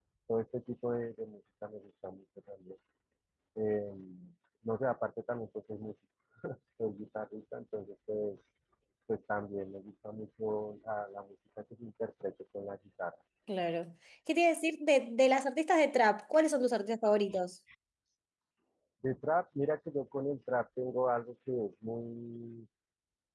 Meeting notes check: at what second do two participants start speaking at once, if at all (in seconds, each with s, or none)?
none